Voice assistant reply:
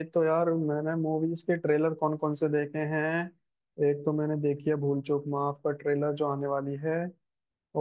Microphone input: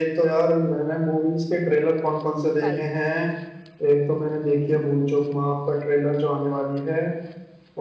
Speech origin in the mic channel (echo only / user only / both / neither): both